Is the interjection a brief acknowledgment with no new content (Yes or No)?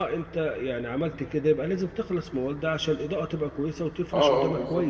No